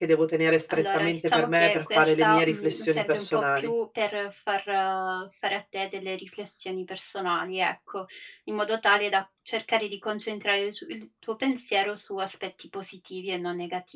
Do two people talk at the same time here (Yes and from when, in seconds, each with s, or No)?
Yes, from 0.7 s